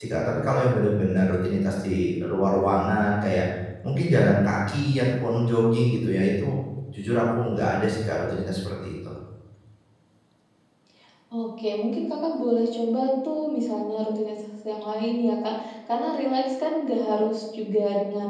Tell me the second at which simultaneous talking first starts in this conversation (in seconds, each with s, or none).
none